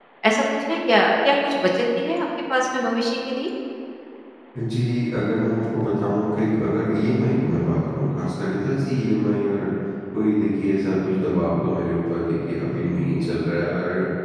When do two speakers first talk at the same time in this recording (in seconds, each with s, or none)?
none